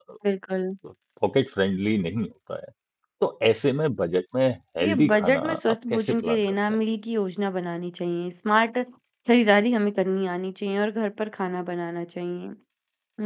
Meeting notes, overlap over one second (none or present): present